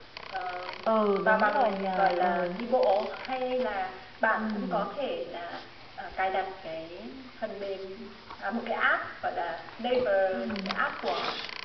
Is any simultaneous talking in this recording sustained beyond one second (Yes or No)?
Yes